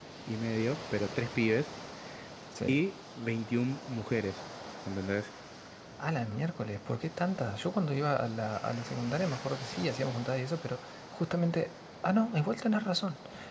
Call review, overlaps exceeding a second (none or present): none